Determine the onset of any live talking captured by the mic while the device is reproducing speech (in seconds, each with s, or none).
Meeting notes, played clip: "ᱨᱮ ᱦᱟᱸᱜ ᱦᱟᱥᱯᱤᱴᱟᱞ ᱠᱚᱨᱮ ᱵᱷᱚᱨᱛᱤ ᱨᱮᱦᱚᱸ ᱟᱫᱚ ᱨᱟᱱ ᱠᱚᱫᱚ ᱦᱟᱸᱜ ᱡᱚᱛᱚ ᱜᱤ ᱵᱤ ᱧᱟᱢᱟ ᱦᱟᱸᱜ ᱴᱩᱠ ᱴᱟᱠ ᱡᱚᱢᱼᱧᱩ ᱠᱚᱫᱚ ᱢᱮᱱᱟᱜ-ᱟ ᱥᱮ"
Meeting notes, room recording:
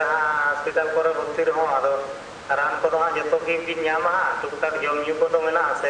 none